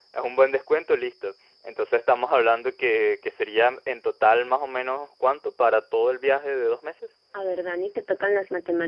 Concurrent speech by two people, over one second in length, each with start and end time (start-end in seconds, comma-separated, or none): none